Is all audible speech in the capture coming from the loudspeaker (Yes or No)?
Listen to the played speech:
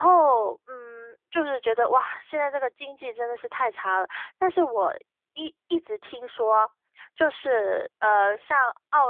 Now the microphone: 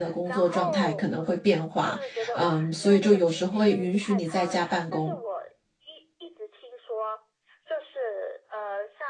No